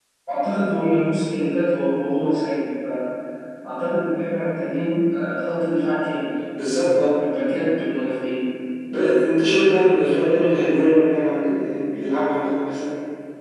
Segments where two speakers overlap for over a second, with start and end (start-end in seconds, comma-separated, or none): none